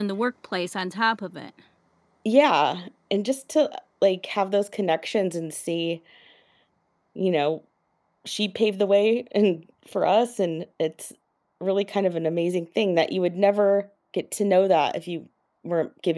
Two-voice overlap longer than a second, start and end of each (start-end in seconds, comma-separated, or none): none